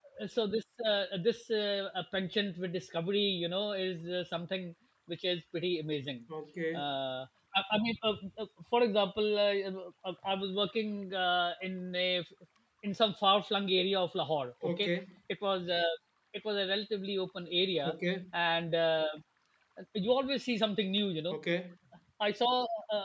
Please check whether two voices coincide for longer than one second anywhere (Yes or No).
No